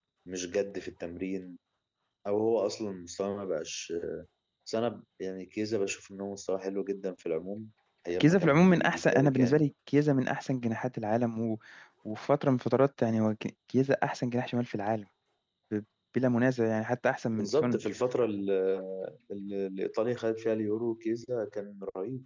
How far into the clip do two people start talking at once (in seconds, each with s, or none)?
8.2 s